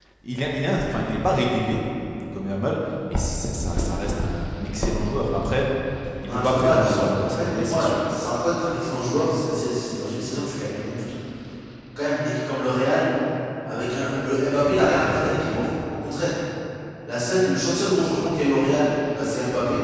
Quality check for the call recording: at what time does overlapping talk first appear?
6.3 s

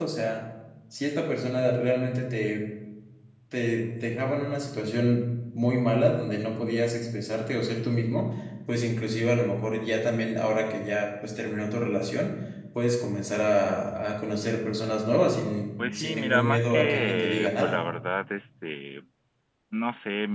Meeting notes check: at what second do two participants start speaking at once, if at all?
15.8 s

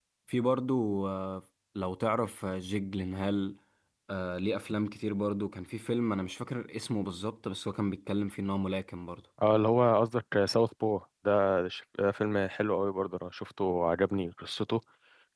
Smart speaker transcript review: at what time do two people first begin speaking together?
none

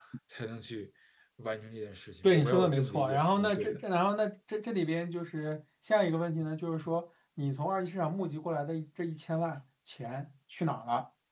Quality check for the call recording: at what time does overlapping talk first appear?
2.2 s

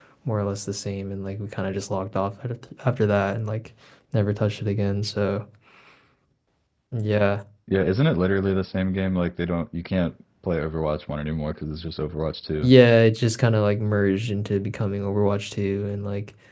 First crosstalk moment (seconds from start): none

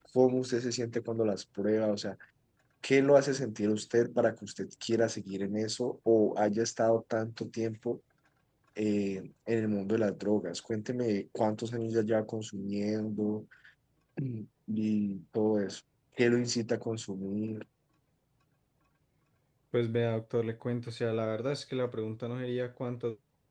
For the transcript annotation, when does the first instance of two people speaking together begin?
none

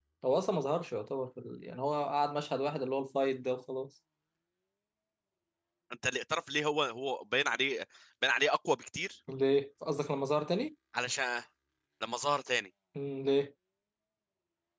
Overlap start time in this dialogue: none

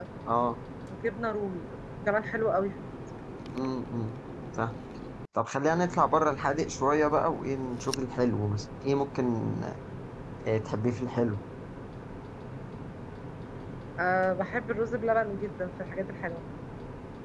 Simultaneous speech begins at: none

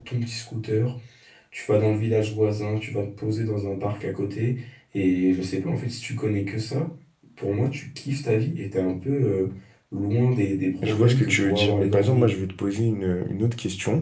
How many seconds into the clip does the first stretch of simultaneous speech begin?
10.8 s

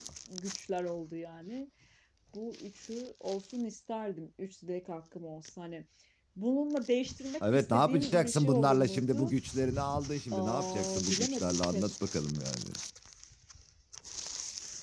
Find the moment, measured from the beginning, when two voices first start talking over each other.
7.4 s

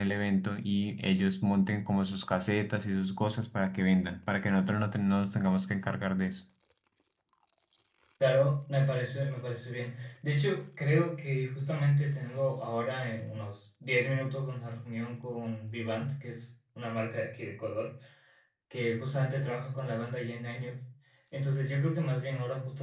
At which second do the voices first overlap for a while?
none

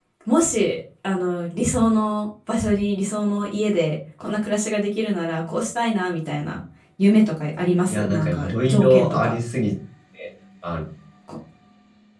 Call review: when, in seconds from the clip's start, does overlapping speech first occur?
7.9 s

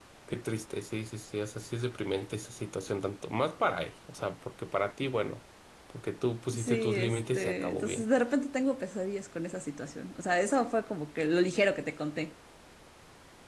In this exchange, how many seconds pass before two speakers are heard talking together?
6.5 s

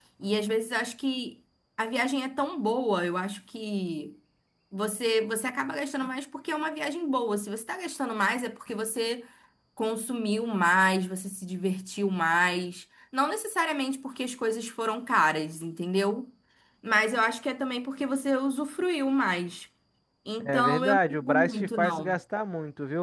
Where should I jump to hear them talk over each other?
20.4 s

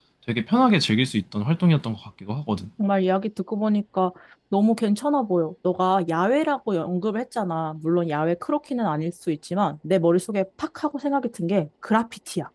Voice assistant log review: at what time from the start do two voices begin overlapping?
none

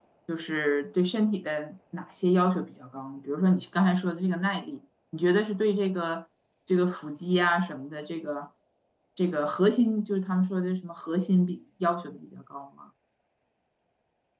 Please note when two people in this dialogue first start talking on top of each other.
none

